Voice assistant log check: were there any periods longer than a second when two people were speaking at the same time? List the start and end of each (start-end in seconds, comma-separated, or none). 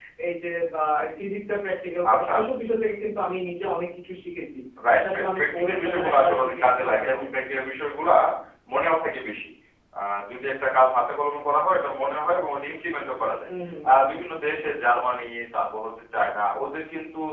4.9-7.2